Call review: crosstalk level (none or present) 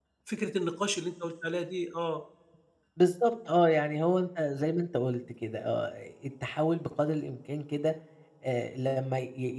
none